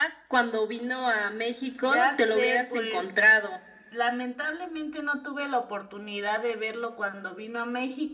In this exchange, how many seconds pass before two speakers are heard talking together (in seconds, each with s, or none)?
1.8 s